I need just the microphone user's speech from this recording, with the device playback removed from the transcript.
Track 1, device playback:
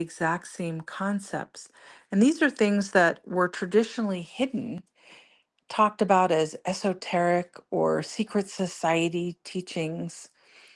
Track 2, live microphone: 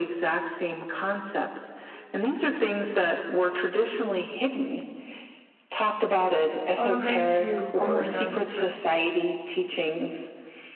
Oh, thank you. Oh my God, that's

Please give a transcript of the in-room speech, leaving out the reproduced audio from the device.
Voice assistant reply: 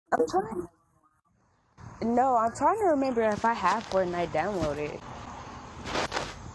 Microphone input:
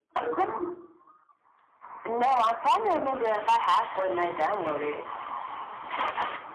none

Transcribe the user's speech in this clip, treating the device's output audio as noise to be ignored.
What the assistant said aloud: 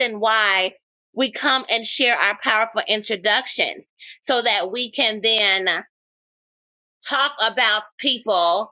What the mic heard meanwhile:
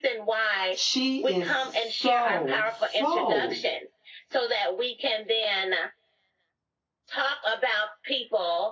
she is so, so,

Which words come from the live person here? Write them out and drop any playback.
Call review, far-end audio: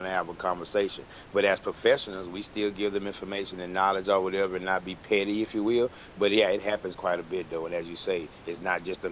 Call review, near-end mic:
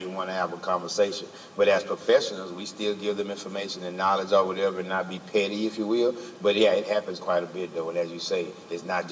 none

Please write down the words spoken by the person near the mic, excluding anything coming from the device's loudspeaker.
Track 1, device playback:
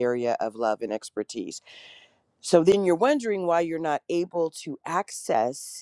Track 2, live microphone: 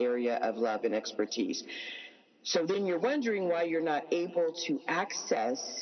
none

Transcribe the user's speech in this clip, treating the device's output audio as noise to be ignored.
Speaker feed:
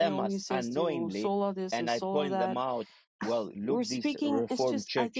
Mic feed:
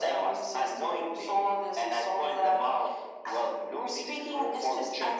none

